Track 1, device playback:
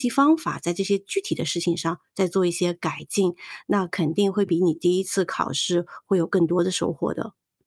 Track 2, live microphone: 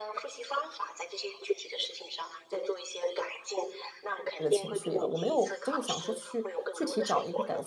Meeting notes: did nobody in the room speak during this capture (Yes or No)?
No